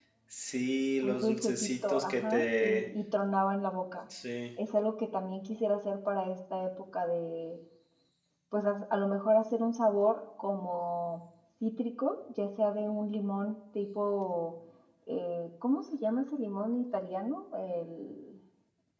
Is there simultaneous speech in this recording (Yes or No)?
Yes